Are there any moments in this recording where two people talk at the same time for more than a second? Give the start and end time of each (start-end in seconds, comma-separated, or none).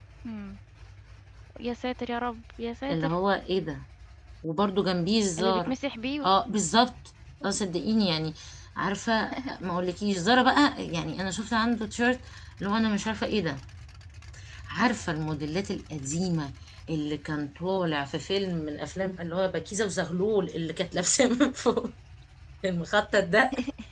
none